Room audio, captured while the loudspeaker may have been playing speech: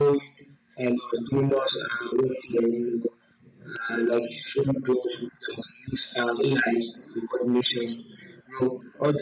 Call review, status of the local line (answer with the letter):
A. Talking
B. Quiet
B